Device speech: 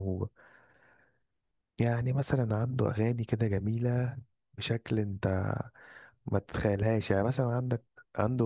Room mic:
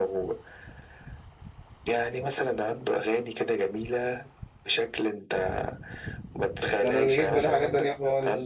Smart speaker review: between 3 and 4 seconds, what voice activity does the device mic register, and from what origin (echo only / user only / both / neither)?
echo only